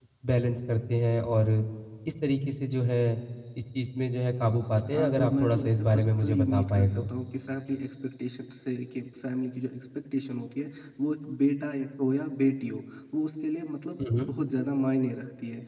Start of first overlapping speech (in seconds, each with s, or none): 4.9 s